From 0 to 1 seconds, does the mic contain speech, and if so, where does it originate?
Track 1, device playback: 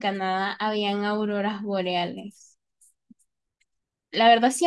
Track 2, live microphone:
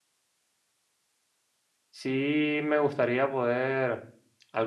neither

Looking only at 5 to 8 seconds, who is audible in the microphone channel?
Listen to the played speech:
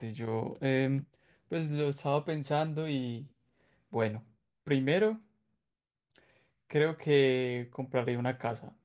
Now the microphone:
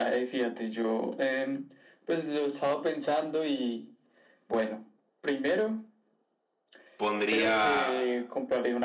both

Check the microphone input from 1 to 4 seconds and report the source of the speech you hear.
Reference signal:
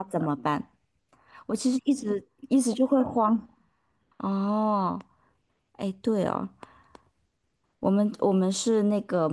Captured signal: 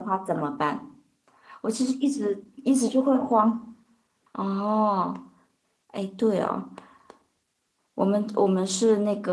echo only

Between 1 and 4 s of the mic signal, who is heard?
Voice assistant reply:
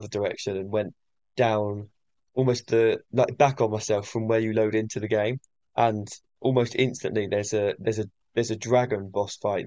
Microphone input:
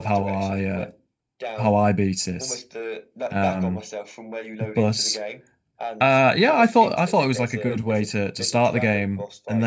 both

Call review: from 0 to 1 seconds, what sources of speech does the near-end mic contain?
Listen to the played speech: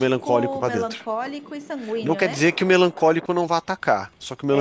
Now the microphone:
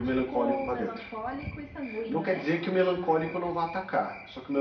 echo only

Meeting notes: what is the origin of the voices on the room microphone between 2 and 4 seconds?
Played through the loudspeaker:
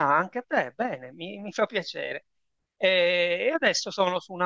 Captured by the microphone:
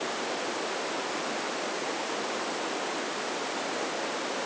neither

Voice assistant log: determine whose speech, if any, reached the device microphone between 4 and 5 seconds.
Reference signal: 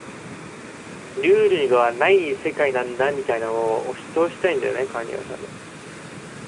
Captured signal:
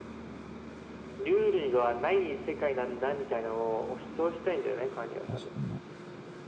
echo only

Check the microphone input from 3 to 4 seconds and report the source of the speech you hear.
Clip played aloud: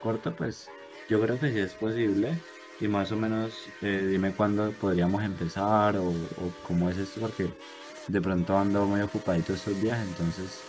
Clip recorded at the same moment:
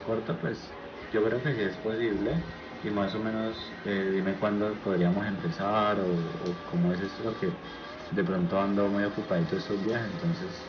echo only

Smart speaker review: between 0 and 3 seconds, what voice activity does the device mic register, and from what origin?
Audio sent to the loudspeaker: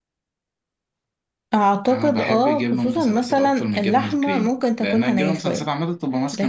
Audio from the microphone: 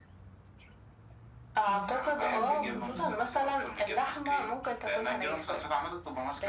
both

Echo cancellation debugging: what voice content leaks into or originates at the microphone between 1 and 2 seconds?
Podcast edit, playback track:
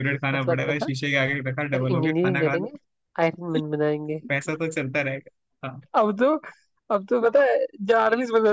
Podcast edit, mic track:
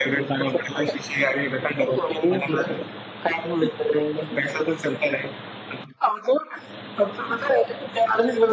echo only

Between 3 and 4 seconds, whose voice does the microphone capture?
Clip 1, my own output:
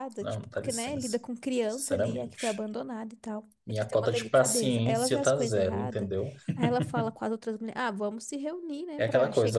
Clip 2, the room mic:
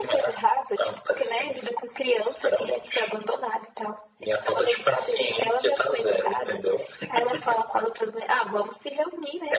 echo only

